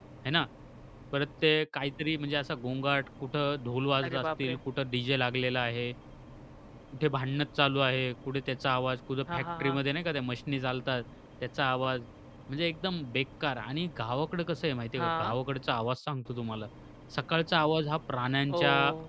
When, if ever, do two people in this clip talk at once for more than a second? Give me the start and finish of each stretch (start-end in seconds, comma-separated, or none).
none